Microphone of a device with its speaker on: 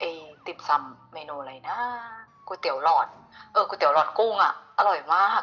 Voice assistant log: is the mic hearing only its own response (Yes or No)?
Yes